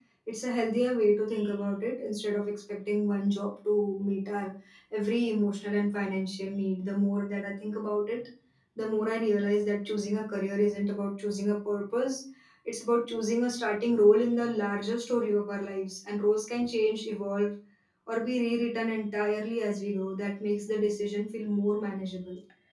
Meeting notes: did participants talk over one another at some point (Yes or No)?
No